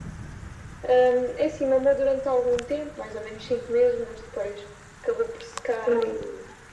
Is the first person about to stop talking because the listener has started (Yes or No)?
No